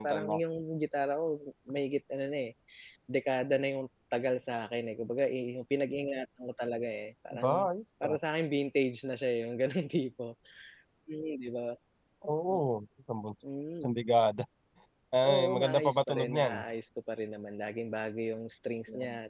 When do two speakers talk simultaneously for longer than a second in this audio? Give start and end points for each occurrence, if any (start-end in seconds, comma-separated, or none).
15.2-16.6